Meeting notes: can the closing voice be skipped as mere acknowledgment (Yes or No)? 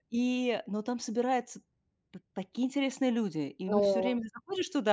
Yes